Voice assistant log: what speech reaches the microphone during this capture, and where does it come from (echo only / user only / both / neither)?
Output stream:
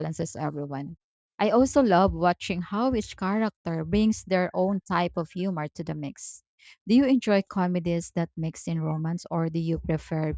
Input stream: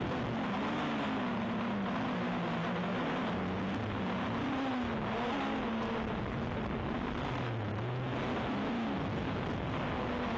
neither